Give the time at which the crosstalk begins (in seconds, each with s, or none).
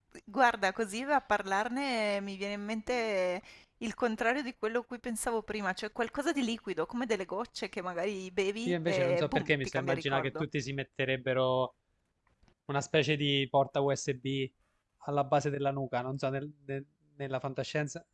8.7 s